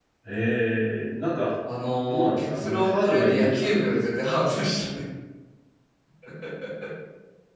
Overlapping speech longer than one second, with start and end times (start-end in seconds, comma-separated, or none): 2.1-3.9